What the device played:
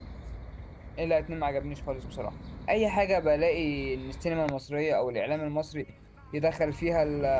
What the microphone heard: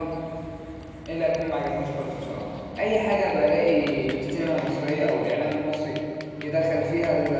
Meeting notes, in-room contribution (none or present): none